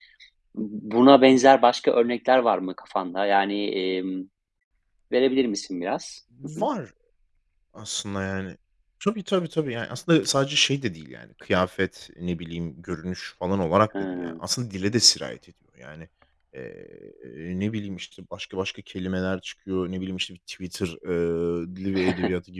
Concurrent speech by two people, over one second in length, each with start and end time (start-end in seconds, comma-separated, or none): none